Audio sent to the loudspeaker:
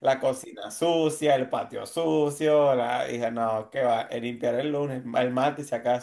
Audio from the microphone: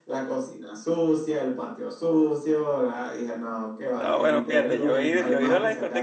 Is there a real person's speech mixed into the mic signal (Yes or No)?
Yes